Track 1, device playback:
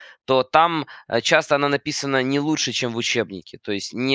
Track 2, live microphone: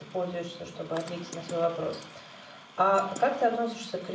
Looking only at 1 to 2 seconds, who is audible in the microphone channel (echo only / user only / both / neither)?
user only